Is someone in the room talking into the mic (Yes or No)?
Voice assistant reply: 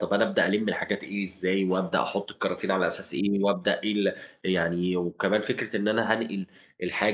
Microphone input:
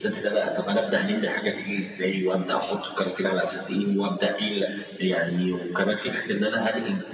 No